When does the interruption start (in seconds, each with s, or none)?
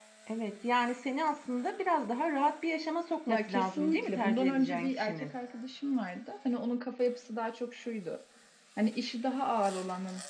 3.3 s